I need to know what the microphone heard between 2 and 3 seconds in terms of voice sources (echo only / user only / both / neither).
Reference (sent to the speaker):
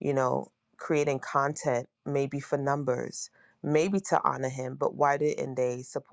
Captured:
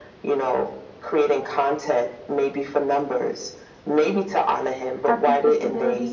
echo only